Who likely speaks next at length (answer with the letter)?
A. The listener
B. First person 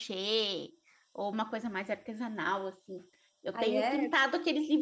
B